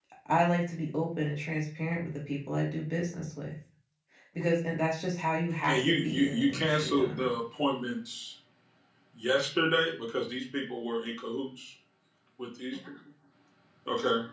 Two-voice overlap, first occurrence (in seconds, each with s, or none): 5.7 s